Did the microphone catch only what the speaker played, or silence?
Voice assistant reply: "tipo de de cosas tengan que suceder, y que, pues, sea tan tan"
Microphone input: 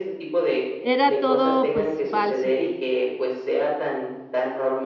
No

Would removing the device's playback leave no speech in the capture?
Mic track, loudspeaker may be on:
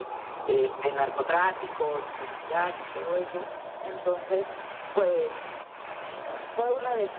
No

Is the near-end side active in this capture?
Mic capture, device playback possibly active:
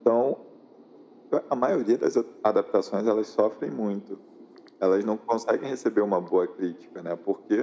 No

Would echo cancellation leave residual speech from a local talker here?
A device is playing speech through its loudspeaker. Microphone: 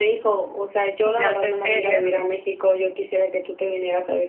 Yes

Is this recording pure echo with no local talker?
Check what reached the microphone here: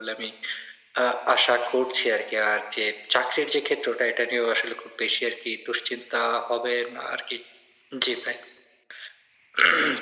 Yes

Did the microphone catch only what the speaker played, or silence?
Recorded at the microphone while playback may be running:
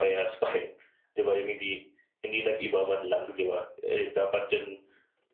Yes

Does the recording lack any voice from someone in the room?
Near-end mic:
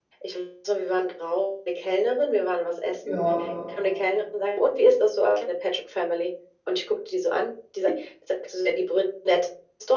No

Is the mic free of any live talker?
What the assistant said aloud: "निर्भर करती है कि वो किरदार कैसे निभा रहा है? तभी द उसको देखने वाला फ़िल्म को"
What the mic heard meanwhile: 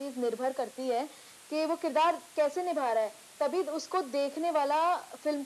Yes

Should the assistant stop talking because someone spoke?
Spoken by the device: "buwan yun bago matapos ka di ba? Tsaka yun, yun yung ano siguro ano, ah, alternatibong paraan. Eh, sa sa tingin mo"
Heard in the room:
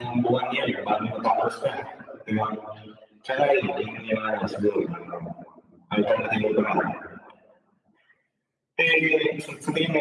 No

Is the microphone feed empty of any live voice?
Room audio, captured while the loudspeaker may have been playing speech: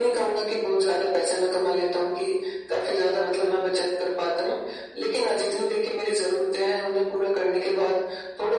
Yes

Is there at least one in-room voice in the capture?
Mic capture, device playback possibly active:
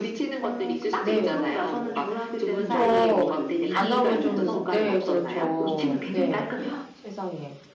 Yes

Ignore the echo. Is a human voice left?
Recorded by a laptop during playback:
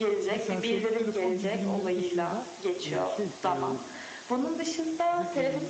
Yes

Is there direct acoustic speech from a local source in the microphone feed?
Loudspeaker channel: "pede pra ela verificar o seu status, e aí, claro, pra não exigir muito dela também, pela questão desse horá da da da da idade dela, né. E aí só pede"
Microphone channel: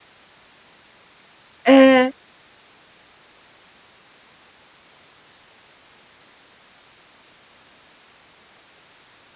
Yes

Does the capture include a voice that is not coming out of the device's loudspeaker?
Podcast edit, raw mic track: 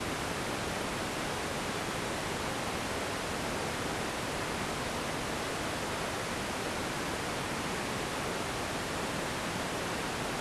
No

